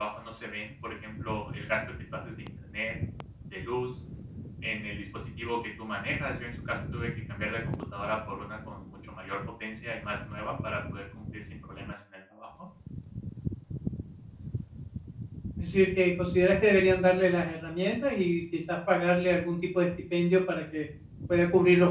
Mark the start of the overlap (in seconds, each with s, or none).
none